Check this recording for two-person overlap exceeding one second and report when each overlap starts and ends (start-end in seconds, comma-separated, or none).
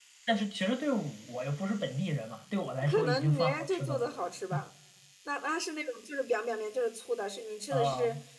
2.9-4.1